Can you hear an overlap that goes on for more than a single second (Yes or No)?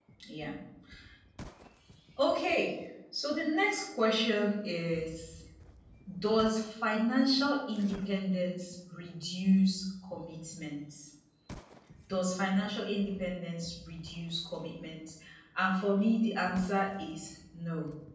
No